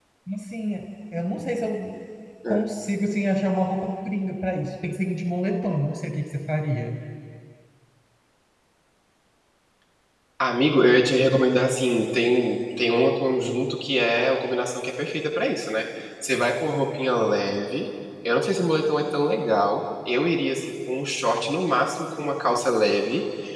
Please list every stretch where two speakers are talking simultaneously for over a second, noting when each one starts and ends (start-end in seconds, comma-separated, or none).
none